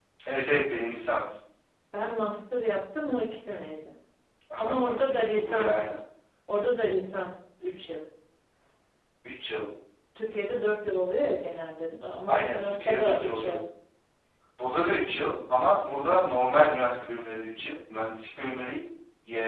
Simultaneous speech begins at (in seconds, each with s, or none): 4.6 s